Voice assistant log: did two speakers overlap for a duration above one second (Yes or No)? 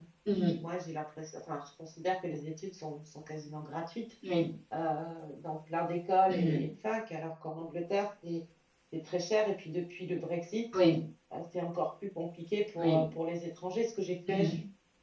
No